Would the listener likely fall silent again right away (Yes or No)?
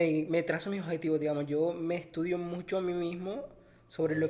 Yes